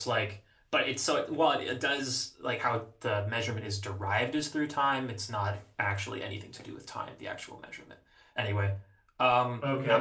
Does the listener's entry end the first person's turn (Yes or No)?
Yes